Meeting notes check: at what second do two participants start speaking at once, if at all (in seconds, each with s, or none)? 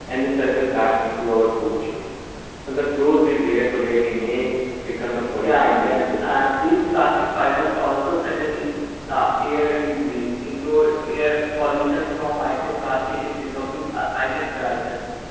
5.4 s